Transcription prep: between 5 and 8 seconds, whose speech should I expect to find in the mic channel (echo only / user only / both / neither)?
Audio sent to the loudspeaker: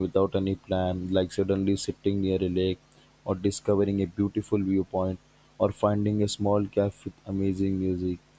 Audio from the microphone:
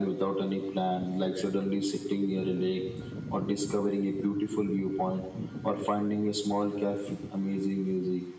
echo only